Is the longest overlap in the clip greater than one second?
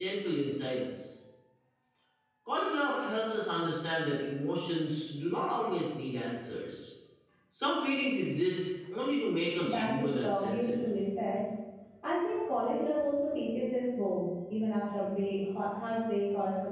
Yes, from 9.6 s

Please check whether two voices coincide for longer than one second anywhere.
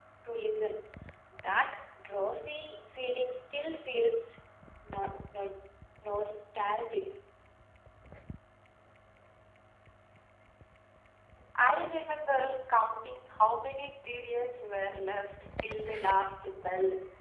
No

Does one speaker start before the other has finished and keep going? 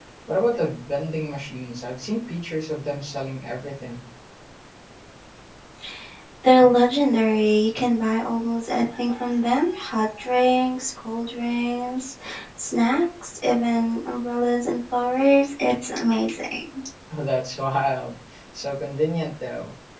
No

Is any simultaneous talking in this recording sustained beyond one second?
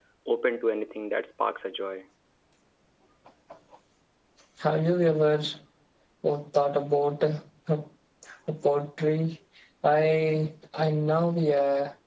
No

